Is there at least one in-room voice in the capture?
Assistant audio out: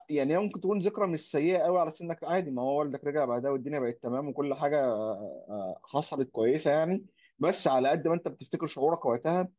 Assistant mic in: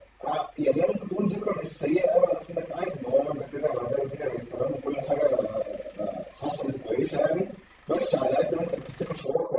No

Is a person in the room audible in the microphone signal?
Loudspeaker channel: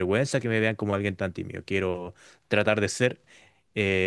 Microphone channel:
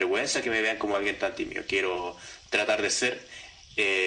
No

